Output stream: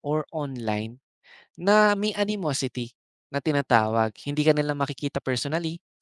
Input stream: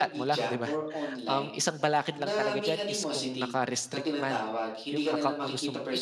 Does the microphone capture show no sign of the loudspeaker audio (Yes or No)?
No